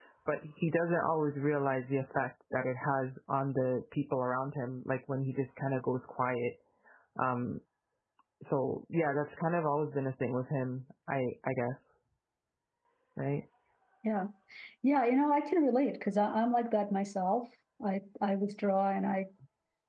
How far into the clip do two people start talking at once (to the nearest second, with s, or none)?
none